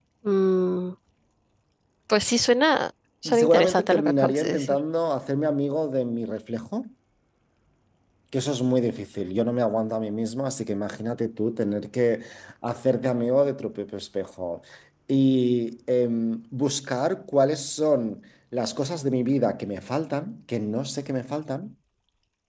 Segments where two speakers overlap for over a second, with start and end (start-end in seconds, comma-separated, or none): 3.2-4.8